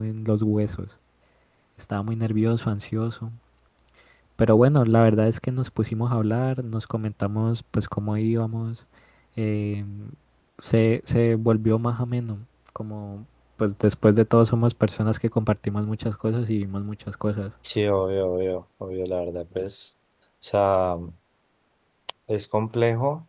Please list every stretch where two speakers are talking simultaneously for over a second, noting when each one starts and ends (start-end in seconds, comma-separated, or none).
none